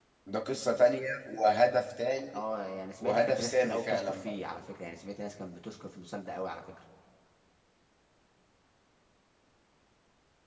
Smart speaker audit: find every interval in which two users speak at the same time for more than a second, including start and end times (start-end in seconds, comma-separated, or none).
3.0-4.3